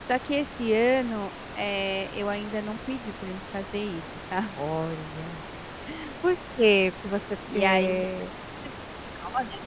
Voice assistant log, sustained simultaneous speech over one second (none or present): none